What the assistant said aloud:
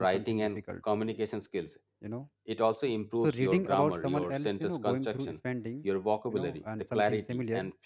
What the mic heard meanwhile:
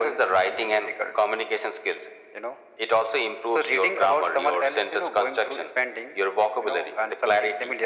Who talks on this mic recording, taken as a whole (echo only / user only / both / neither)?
echo only